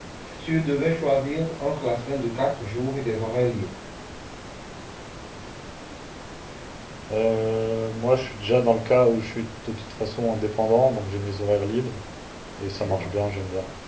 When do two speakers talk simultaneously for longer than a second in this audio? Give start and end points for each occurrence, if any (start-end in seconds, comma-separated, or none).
none